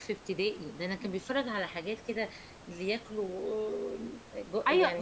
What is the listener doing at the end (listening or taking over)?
taking over